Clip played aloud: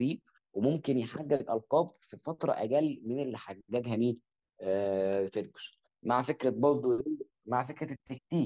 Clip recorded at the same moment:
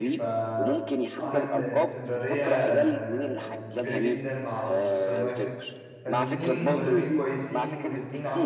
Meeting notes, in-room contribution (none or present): present